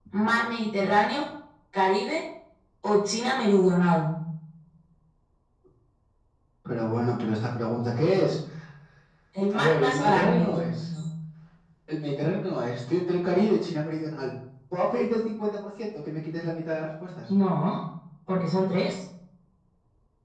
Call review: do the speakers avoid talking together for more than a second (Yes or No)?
No